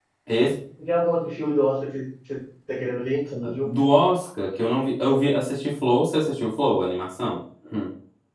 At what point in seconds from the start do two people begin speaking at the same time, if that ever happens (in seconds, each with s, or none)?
none